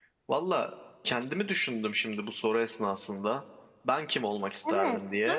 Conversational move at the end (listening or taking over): taking over